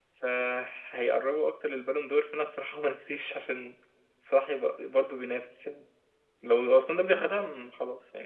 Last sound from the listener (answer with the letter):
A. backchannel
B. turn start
A